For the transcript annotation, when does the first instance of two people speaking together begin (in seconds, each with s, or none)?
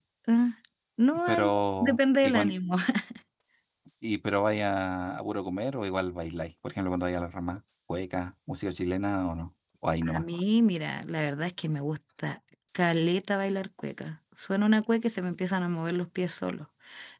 1.3 s